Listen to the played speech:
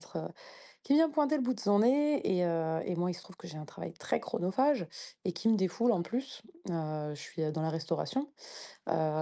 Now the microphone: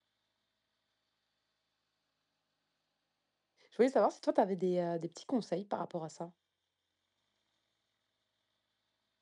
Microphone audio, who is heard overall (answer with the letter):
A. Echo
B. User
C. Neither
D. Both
B